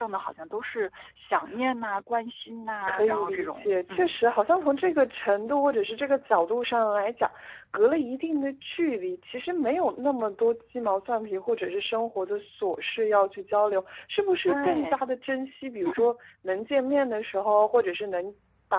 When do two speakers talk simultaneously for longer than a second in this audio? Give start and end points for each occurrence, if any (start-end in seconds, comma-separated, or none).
2.9-4.2